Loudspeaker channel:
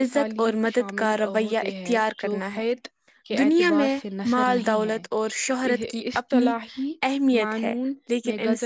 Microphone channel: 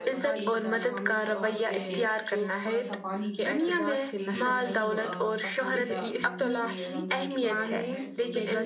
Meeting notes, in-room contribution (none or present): present